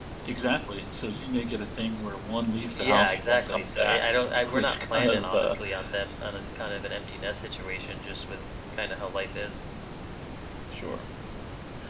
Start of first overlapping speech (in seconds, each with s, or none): 2.8 s